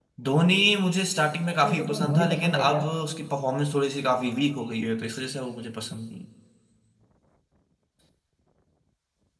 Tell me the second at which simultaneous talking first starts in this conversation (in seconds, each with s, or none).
1.5 s